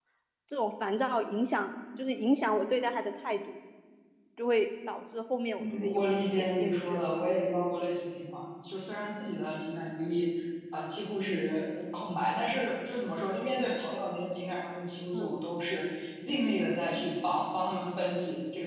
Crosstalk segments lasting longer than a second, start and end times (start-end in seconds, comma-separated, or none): 5.6-7.0